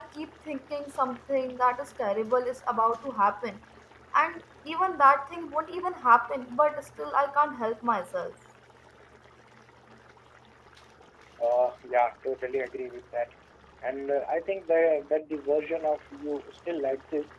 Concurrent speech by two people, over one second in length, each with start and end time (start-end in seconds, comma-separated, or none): none